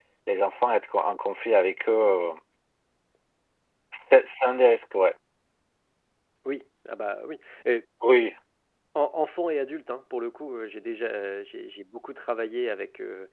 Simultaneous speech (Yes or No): No